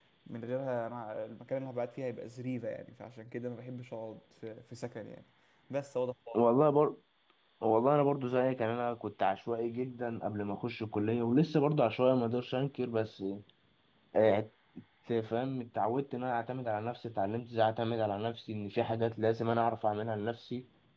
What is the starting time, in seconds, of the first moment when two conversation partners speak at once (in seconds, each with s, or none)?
none